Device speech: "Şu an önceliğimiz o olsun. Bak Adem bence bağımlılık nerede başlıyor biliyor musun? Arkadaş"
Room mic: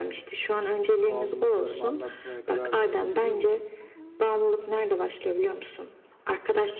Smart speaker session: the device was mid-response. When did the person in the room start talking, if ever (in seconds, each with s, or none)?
1.1 s